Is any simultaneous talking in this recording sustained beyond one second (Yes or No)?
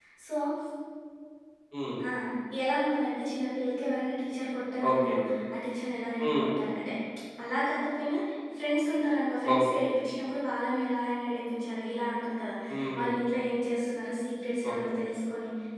No